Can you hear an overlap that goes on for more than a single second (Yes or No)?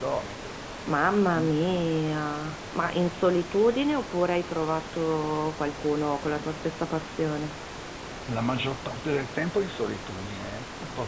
No